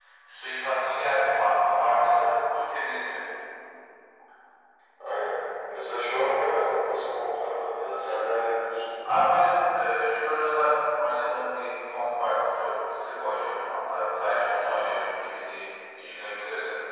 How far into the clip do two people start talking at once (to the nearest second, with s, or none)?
none